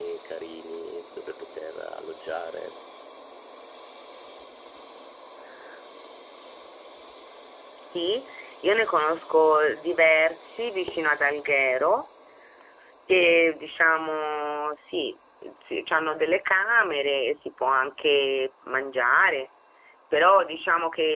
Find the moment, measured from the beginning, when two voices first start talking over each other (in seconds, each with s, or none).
none